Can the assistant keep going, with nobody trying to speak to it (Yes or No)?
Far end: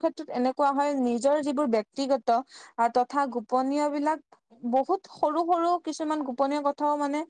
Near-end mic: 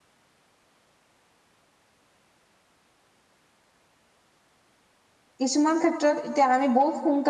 No